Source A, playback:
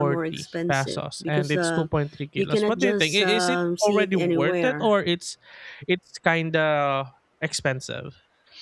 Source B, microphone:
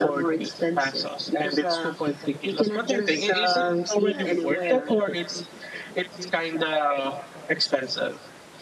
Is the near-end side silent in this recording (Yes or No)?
No